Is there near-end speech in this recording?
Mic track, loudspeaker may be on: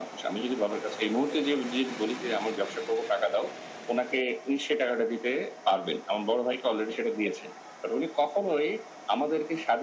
No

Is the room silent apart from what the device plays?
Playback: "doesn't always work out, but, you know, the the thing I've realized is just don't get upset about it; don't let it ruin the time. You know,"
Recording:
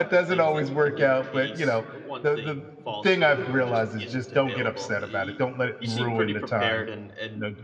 No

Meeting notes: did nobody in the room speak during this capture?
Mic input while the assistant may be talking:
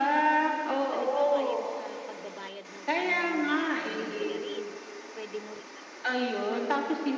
No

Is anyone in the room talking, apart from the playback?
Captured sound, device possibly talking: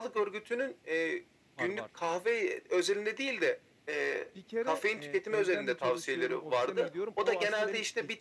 Yes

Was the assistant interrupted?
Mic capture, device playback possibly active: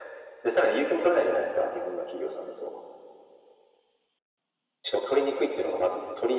No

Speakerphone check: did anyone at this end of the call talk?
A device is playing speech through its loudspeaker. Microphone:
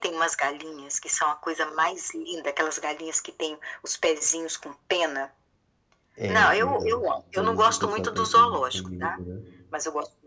Yes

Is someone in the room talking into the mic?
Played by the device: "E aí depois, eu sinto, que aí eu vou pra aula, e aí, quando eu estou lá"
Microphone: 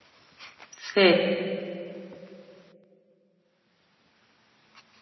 Yes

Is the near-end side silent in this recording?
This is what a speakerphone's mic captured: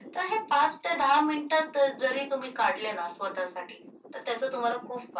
Yes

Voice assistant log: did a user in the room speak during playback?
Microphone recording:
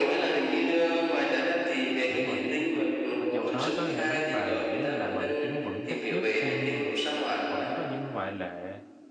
Yes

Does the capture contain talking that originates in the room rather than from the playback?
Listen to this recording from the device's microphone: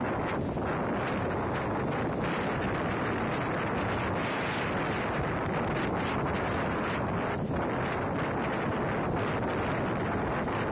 No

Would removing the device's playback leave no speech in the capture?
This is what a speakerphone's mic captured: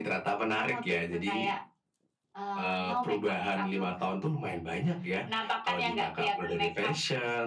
Yes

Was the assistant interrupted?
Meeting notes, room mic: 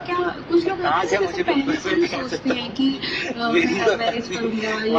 No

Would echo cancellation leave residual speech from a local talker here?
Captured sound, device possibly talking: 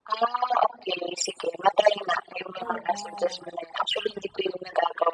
Yes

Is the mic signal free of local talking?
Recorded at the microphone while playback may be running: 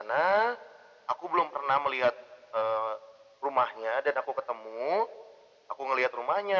Yes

